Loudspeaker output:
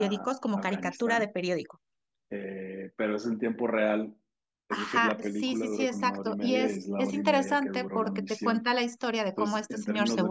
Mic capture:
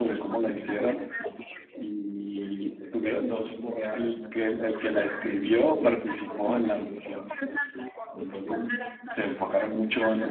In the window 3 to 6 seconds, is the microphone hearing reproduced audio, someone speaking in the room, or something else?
both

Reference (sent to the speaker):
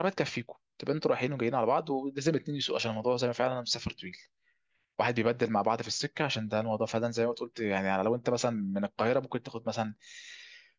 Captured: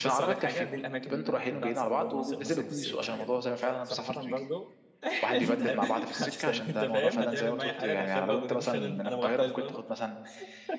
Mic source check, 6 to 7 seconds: both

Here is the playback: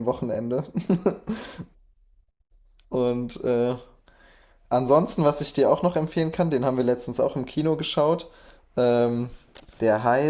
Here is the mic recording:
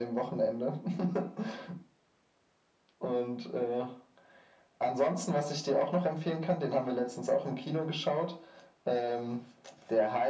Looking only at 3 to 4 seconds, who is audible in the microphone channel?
echo only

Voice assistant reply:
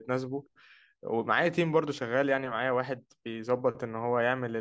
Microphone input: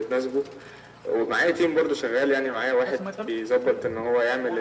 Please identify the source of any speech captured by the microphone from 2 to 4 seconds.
both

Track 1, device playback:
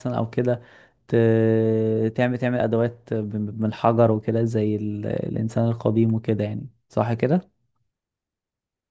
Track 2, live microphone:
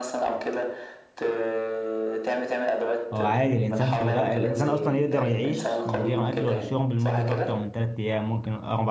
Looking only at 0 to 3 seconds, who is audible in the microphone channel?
echo only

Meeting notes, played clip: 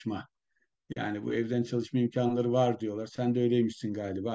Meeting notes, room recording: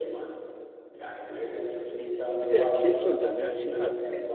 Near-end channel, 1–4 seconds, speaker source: both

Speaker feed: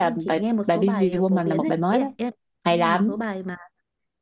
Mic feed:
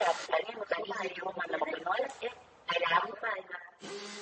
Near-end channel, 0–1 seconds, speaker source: echo only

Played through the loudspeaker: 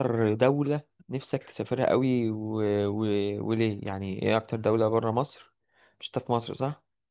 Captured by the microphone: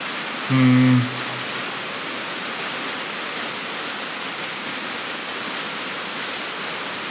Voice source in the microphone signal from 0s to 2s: user only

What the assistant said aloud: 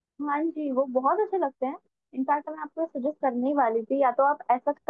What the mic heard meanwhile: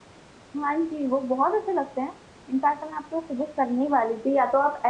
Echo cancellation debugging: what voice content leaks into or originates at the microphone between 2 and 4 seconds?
echo only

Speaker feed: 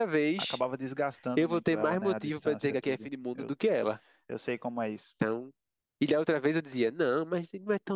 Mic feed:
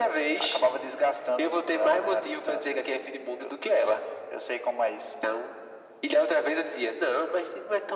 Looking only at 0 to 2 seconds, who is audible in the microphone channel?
echo only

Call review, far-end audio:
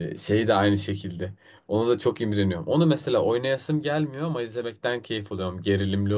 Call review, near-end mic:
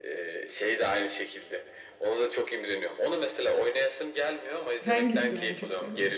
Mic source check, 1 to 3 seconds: echo only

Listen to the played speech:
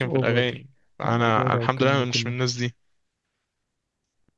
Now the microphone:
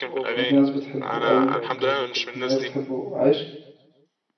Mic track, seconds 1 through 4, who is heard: both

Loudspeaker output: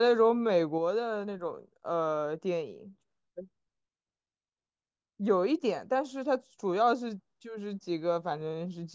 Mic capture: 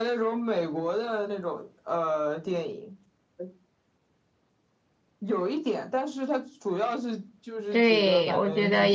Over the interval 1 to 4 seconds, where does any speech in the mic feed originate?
echo only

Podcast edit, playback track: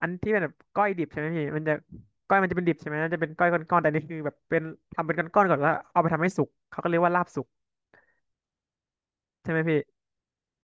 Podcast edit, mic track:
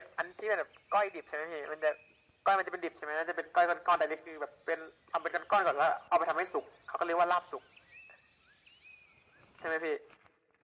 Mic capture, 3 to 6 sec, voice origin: echo only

